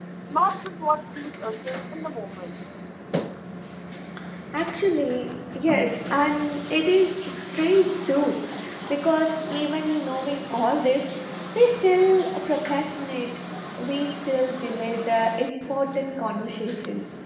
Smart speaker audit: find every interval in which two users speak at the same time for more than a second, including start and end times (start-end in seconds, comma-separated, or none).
none